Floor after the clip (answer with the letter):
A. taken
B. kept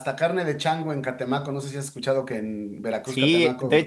A